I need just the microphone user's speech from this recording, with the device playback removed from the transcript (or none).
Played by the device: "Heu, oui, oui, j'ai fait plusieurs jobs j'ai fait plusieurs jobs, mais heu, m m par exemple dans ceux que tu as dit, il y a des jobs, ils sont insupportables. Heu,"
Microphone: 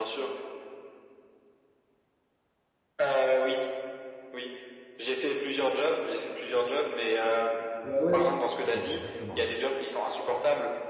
Ouais, ouais. Exactement, ouais.